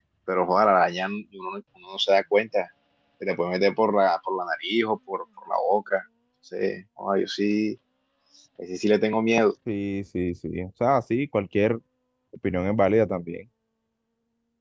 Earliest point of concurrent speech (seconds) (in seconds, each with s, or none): none